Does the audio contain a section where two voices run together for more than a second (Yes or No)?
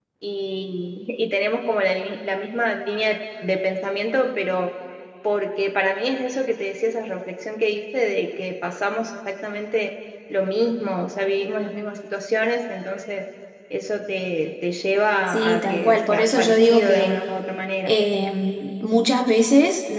Yes